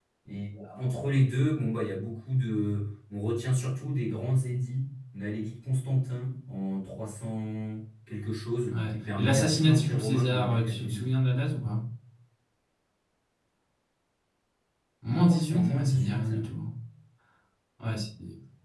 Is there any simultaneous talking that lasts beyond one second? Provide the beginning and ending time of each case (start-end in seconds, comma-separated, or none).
8.7-11.0, 15.1-16.3